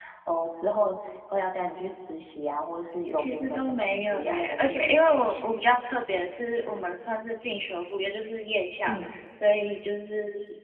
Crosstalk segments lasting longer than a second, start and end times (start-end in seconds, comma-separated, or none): 3.2-5.5